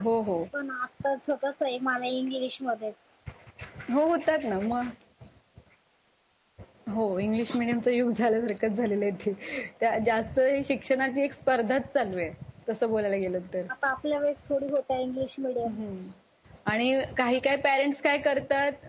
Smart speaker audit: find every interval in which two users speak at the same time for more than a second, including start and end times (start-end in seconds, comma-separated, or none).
none